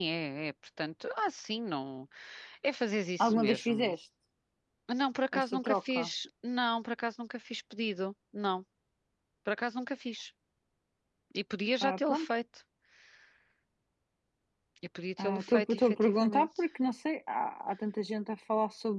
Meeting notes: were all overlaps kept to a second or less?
No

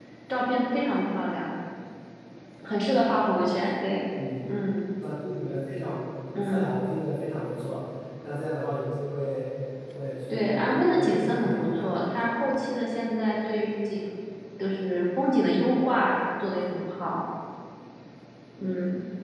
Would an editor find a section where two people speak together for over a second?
Yes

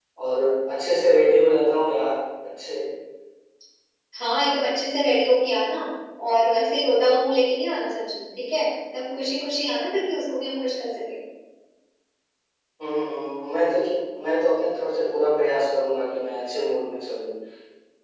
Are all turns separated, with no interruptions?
Yes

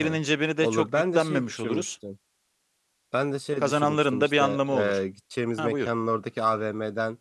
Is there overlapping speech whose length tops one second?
Yes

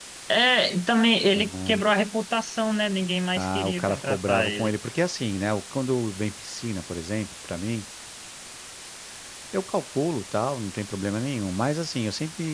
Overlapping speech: Yes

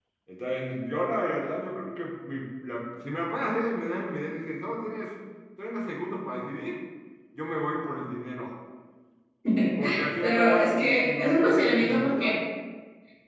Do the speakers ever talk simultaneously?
Yes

